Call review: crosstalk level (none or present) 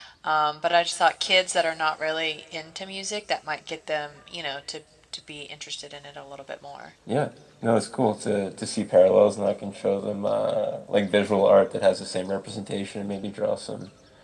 none